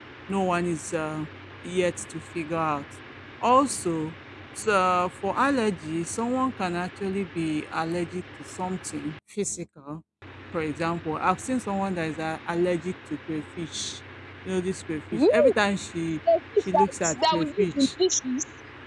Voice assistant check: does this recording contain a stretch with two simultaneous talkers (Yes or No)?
Yes